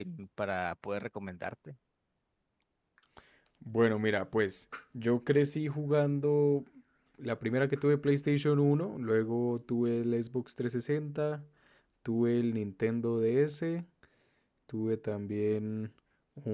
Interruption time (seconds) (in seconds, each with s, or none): none